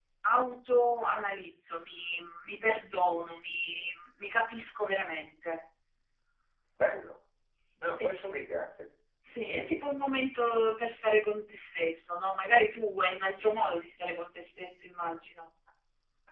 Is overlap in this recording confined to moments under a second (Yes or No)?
Yes